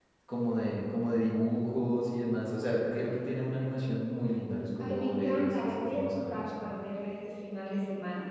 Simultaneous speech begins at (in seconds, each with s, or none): 4.8 s